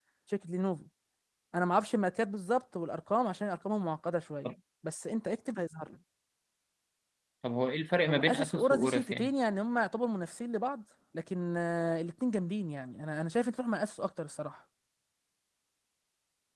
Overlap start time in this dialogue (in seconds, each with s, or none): 8.1 s